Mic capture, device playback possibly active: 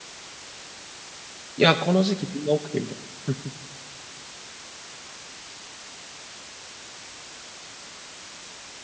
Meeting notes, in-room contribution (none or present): present